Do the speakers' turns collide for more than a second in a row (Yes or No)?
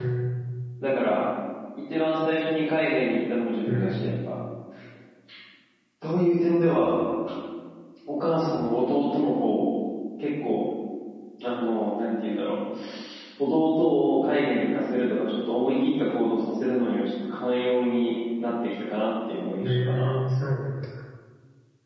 No